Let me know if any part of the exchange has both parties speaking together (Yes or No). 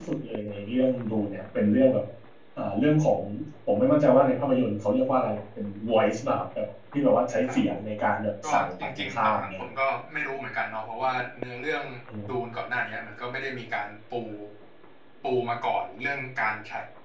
Yes